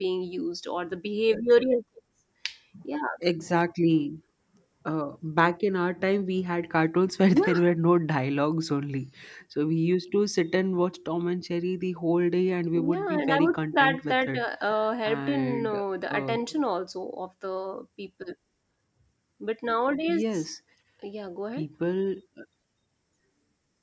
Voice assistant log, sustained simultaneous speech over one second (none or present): present